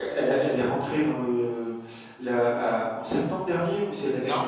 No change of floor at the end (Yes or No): No